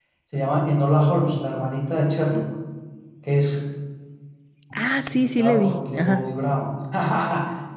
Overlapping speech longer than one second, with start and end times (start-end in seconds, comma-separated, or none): 4.8-6.2